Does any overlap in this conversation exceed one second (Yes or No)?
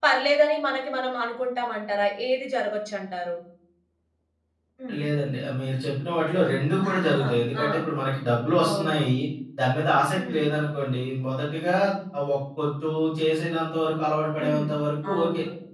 No